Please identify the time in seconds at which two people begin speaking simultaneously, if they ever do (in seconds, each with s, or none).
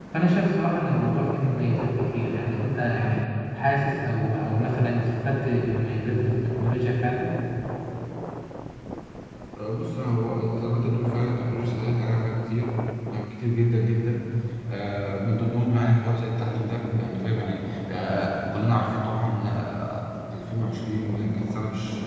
none